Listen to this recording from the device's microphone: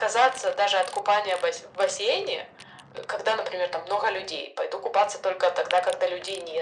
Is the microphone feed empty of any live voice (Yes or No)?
Yes